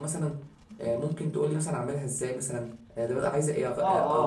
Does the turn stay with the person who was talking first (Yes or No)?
No